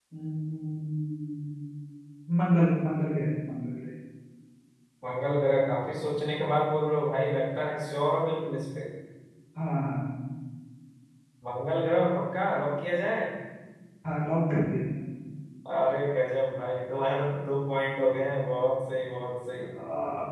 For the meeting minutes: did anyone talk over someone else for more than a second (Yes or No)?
No